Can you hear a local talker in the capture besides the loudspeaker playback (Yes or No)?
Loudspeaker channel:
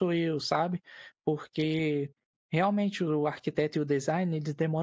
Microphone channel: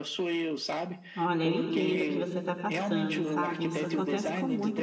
Yes